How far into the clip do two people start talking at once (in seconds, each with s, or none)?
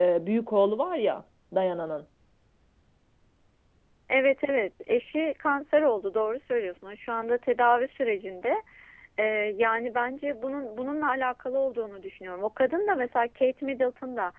none